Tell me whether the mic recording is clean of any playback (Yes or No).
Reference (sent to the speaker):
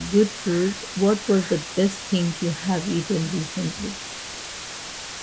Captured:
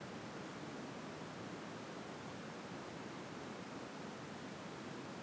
Yes